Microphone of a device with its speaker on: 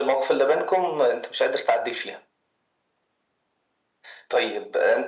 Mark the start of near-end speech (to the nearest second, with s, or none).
none